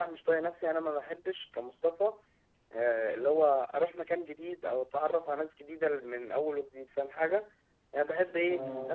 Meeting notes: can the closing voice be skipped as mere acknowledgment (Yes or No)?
Yes